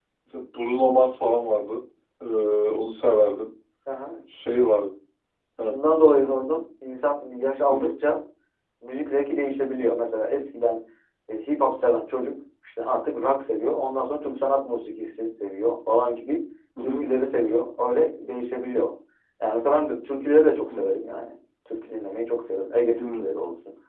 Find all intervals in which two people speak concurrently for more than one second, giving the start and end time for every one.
none

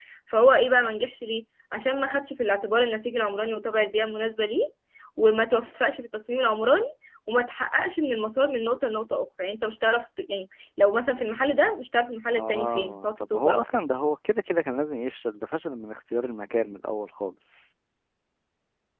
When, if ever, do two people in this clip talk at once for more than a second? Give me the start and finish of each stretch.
12.4-13.8

